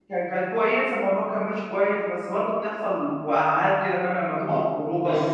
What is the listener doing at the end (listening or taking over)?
taking over